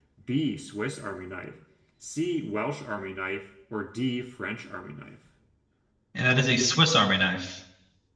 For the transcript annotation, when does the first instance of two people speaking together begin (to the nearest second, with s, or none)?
none